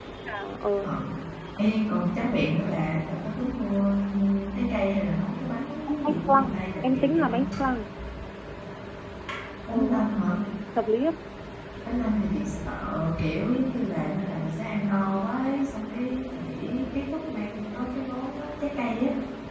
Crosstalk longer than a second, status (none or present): present